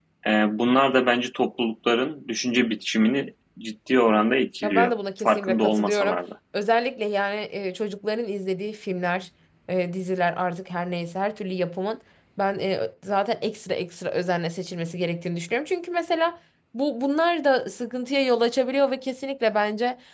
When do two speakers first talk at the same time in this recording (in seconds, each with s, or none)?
4.6 s